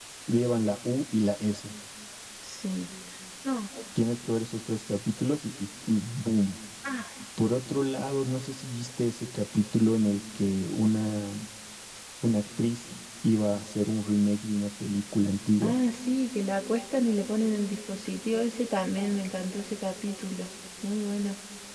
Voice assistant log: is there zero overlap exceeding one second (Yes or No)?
Yes